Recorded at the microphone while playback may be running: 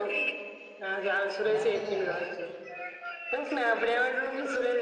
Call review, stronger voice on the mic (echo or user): echo